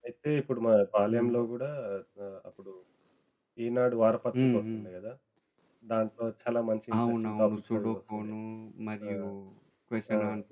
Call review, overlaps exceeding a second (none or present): present